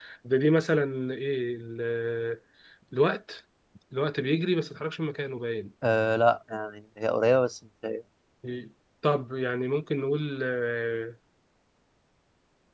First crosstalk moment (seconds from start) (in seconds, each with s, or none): none